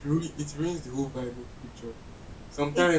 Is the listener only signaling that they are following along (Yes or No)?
Yes